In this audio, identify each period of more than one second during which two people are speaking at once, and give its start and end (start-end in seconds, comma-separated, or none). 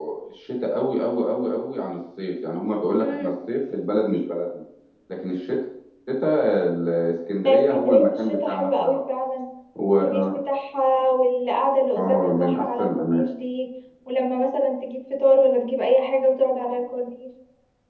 7.4-9.0, 11.9-13.3